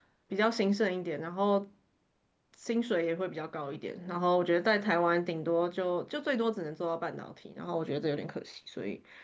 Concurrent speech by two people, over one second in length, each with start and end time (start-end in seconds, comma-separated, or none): none